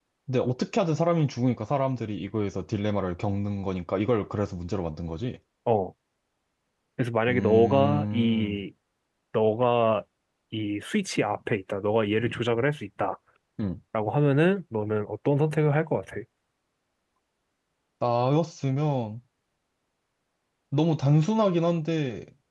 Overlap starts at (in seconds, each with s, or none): 7.3 s